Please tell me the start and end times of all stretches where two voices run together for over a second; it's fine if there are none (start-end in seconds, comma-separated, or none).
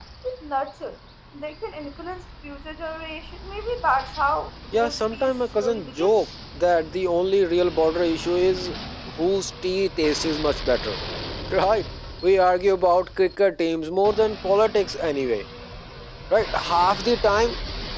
4.7-6.2